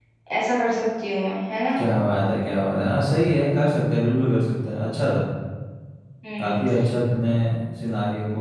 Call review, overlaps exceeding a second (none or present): none